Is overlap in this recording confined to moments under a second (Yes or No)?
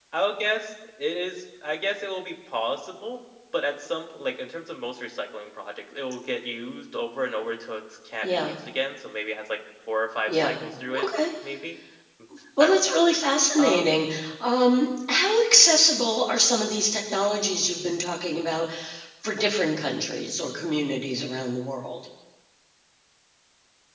Yes